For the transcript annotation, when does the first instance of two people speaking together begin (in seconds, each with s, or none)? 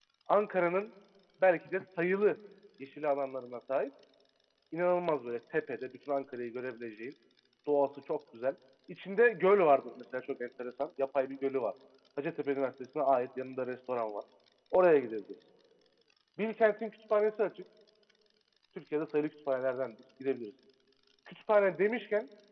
none